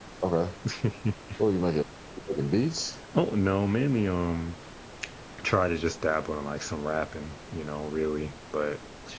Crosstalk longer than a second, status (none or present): none